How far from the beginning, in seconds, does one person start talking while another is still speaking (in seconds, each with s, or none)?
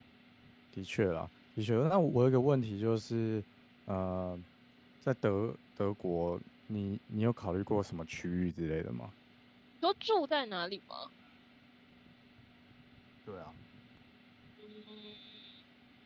none